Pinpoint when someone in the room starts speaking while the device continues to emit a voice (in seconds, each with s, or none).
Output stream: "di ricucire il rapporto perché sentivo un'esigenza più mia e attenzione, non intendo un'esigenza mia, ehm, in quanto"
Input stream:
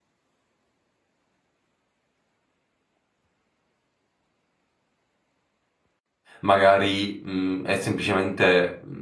6.4 s